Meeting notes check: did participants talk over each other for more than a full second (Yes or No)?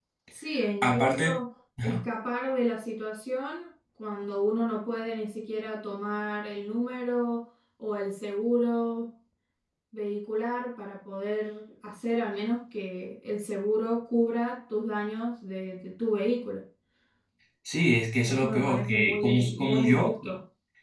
Yes